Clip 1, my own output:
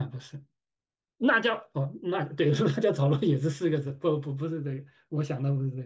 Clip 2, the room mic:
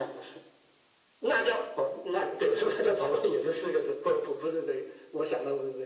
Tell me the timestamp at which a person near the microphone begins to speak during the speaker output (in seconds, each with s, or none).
none